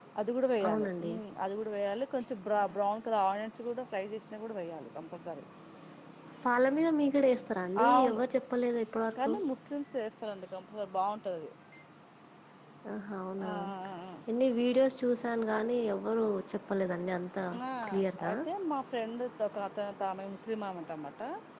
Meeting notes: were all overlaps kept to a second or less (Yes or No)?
Yes